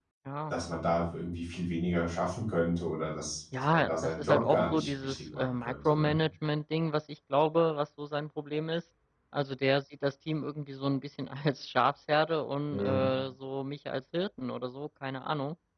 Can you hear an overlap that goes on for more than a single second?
Yes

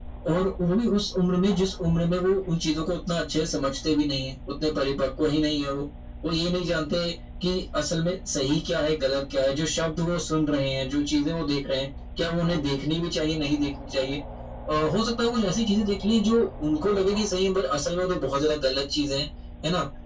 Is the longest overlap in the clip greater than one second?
No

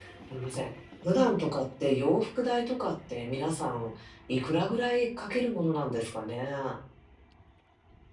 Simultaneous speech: No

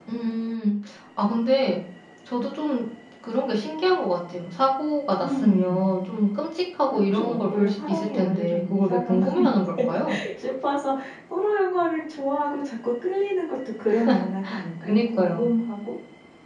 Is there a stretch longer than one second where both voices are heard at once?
Yes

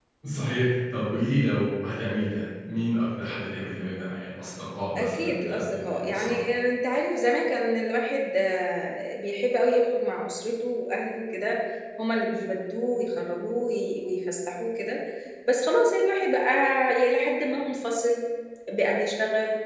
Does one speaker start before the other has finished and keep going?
Yes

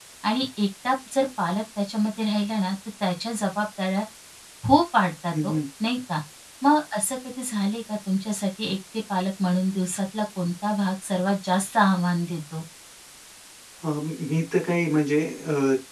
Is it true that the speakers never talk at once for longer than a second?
Yes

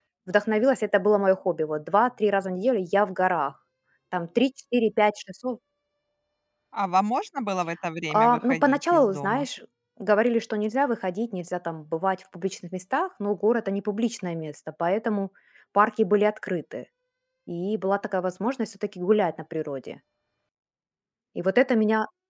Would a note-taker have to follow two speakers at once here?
Yes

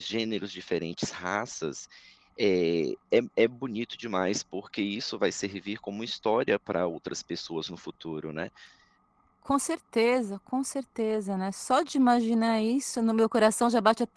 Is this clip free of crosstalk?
Yes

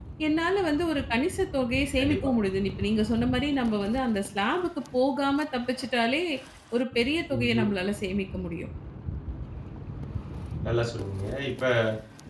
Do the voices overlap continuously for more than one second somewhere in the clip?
No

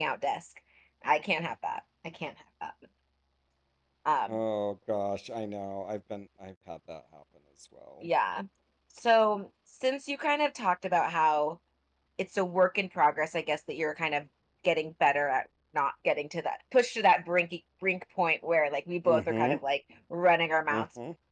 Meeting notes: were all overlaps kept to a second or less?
Yes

